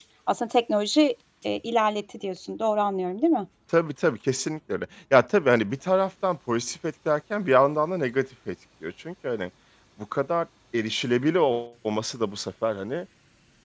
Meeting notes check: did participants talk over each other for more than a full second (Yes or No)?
No